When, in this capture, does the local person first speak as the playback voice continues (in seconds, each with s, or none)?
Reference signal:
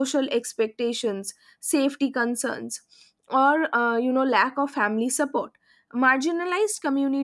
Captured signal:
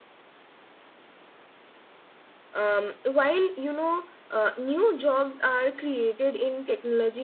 2.5 s